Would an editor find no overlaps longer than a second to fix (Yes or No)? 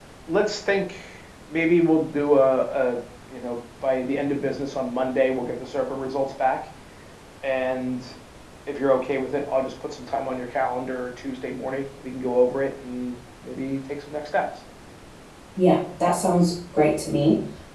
Yes